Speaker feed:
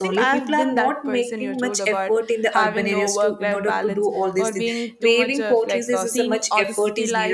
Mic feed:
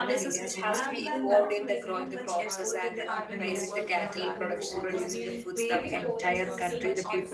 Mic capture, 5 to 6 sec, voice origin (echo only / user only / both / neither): both